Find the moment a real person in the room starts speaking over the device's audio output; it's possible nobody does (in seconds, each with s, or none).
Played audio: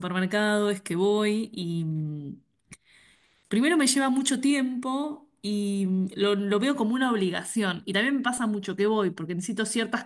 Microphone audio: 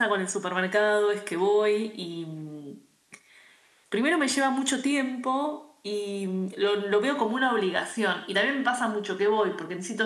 none